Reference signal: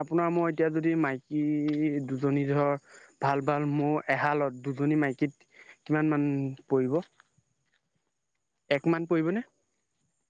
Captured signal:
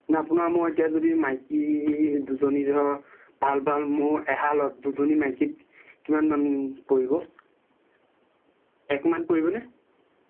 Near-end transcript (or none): none